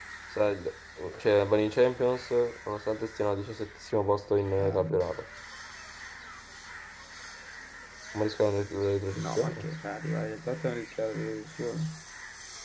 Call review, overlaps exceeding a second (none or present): none